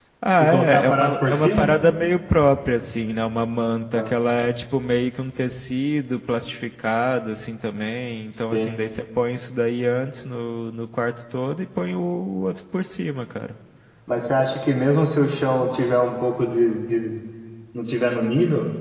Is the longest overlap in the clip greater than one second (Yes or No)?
Yes